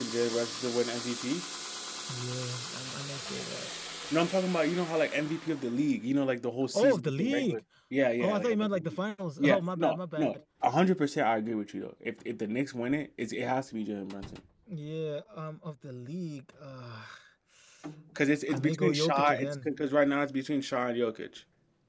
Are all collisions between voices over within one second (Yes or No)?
No